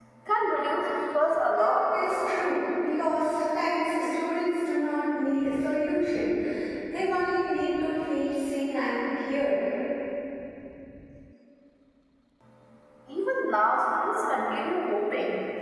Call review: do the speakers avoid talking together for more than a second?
Yes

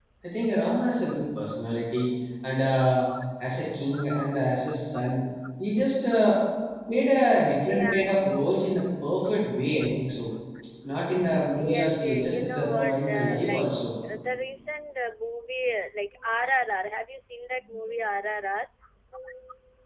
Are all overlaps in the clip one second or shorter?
No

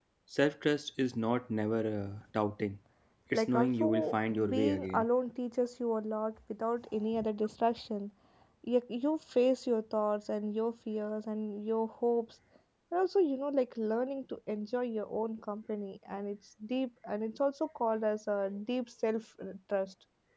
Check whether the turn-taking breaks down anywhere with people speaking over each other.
Yes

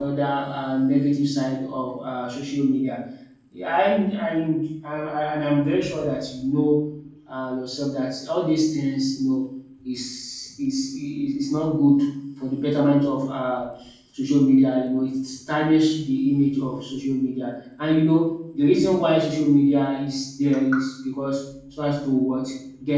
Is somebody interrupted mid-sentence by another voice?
No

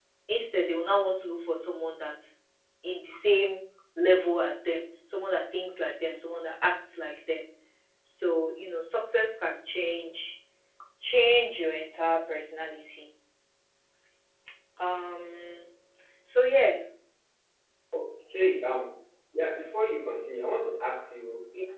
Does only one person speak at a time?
Yes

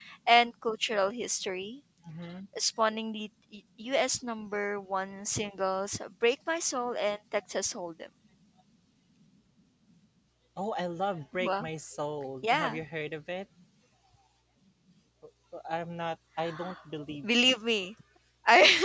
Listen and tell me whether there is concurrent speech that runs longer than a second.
No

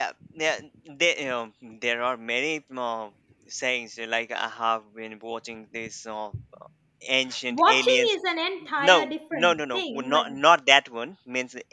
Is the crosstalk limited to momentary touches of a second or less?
No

